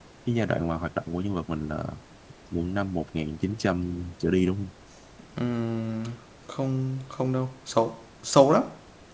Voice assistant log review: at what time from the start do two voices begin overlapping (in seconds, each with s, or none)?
none